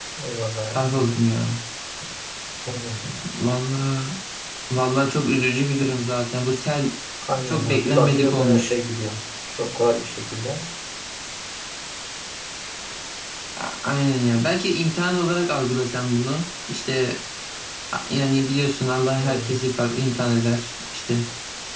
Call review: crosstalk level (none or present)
present